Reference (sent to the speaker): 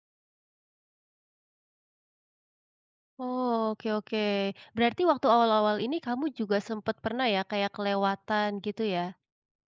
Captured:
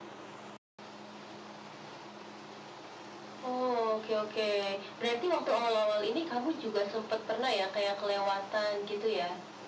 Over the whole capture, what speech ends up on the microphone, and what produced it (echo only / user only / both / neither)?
echo only